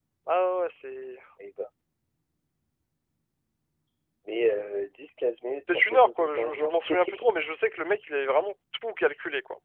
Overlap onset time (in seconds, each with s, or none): 5.7 s